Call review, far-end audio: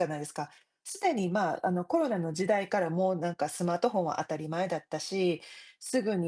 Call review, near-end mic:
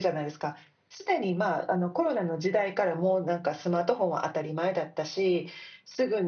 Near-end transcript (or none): none